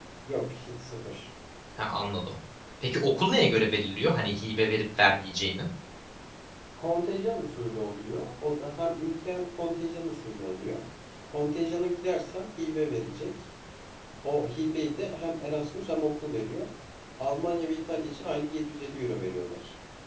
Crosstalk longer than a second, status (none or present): none